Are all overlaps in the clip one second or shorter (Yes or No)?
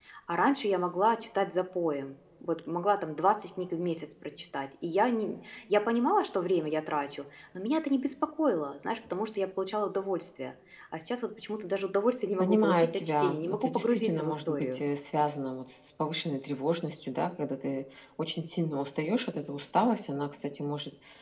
No